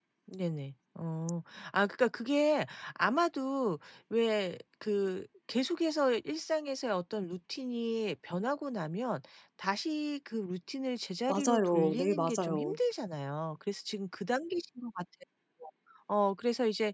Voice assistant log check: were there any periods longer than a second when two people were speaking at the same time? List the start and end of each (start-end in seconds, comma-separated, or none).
11.3-12.8